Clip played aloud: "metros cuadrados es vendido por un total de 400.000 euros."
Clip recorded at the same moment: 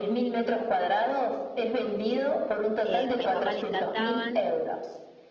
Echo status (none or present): present